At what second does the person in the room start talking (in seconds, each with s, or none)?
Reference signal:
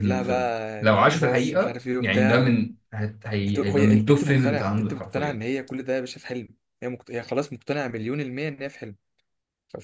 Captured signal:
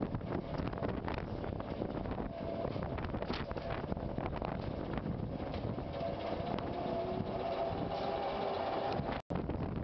none